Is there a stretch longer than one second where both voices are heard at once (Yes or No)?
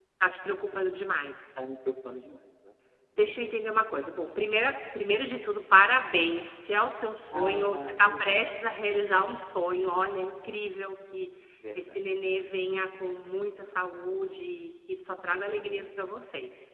Yes